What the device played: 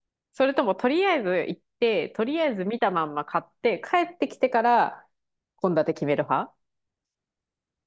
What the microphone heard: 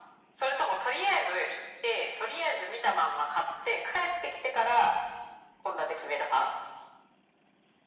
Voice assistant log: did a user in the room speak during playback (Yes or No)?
No